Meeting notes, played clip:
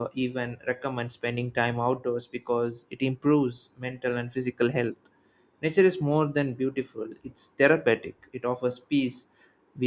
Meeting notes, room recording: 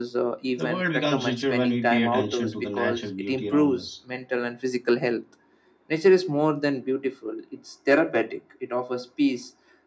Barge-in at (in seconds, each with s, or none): 0.6 s